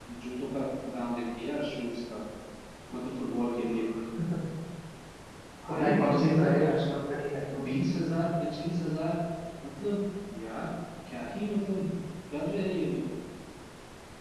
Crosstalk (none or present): present